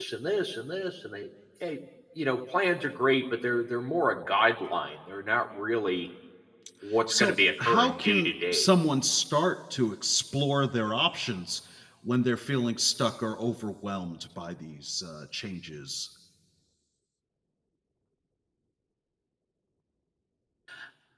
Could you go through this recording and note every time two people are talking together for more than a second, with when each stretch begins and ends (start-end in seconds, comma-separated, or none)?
7.1-8.7